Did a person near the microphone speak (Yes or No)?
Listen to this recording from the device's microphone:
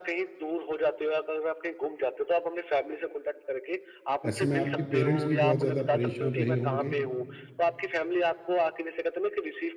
Yes